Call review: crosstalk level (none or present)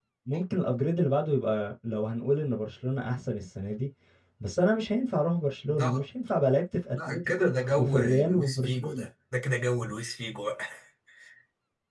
present